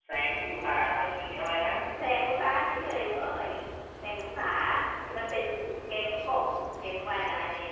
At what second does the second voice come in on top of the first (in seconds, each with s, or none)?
none